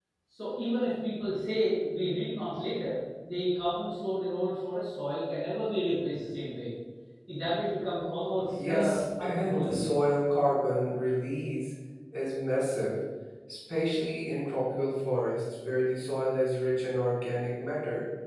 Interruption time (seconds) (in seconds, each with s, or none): 8.6 s